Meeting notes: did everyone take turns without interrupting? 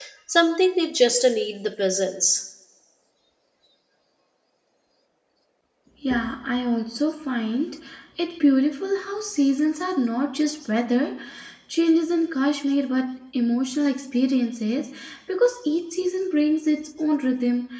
Yes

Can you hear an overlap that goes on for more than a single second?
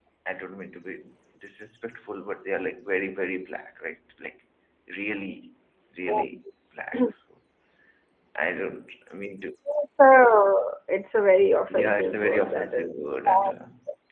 Yes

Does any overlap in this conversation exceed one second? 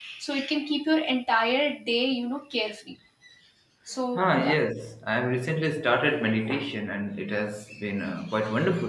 No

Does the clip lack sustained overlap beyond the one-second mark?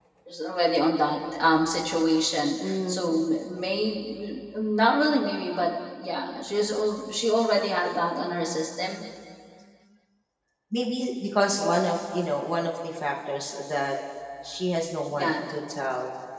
Yes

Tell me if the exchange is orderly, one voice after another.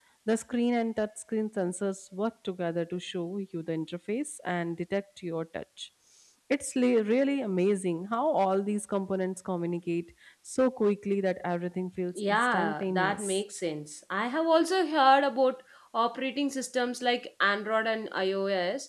No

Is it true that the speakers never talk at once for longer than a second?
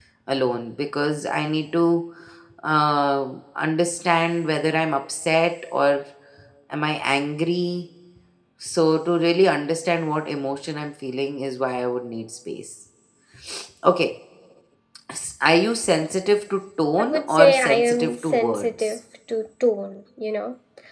No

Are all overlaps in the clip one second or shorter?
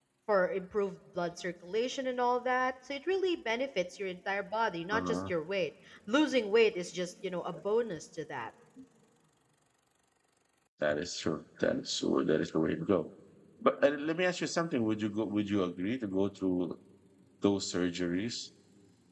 Yes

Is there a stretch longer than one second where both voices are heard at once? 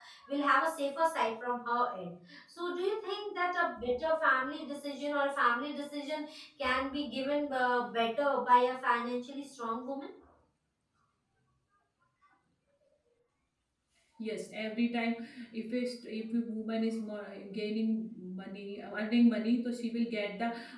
No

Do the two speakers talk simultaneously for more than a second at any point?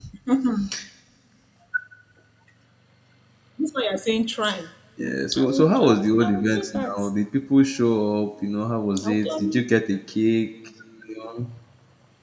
Yes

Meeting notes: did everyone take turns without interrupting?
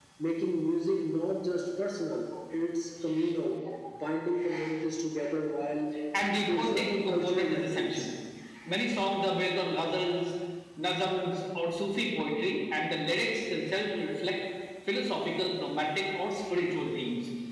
No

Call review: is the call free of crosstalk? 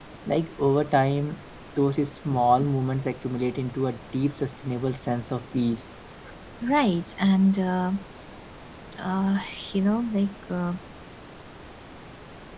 Yes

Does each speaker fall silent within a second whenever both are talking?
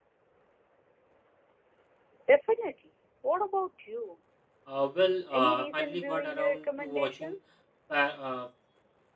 No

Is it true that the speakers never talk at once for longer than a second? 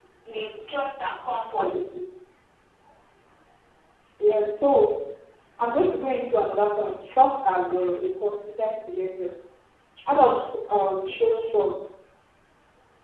Yes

